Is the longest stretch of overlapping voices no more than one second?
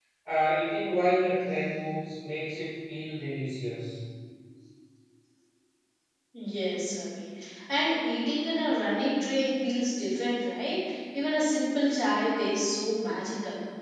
Yes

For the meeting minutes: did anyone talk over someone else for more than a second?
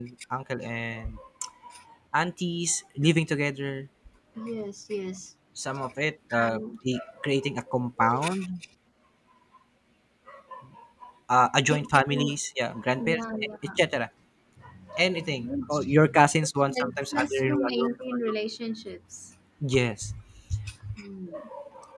Yes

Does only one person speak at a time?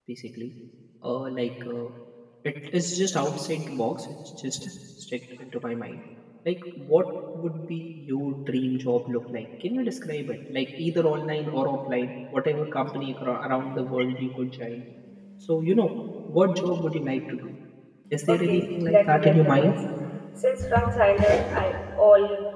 No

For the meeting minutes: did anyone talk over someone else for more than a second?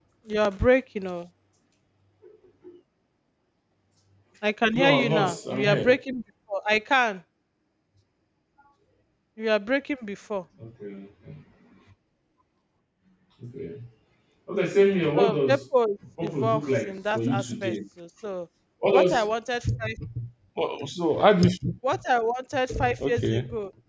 Yes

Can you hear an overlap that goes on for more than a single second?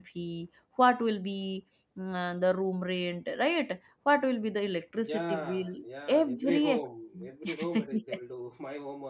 Yes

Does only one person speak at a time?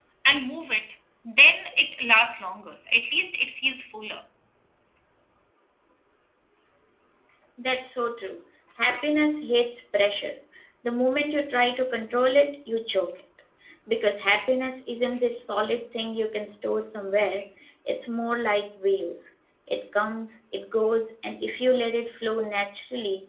Yes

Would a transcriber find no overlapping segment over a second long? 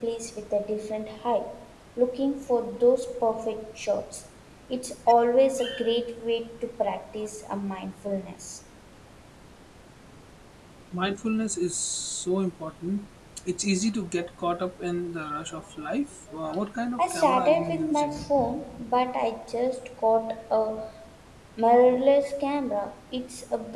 No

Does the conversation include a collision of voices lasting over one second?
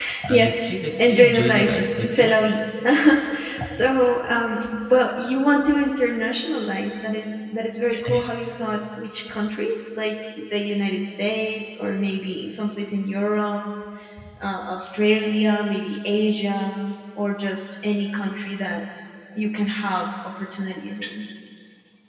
Yes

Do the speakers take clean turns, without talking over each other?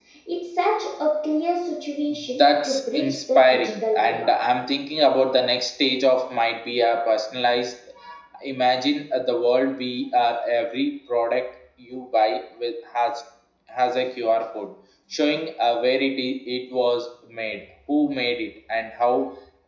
No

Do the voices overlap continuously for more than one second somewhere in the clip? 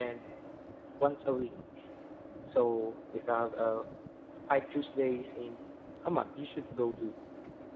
No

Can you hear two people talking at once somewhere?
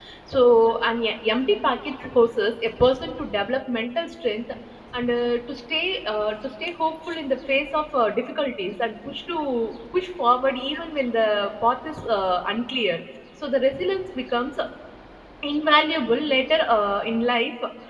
No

